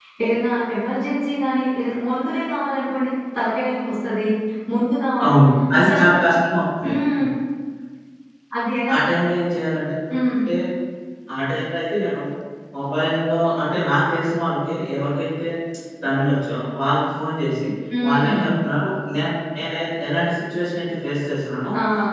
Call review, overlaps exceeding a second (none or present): none